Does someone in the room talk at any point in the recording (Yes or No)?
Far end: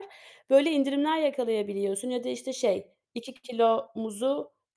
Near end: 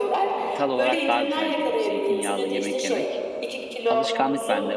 Yes